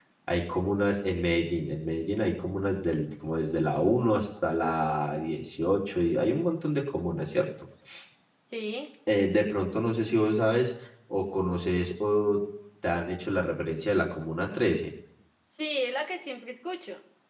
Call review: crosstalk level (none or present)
none